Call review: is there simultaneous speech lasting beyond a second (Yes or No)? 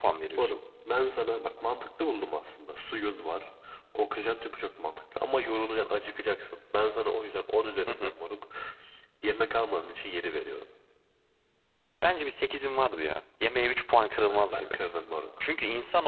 No